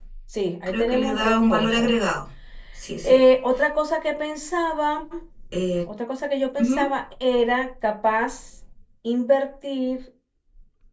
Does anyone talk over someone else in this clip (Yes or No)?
Yes